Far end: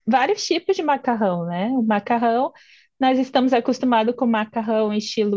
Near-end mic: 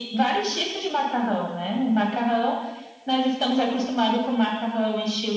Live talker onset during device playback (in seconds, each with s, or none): none